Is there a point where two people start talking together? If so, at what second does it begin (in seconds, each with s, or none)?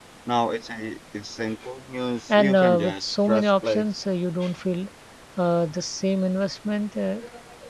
2.3 s